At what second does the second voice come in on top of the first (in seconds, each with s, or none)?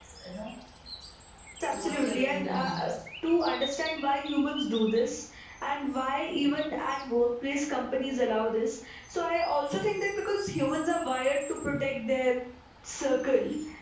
1.7 s